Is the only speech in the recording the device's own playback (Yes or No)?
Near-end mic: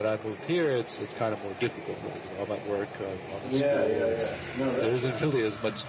No